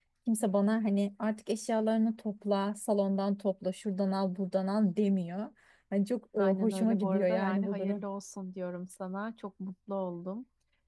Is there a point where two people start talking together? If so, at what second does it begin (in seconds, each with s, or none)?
6.4 s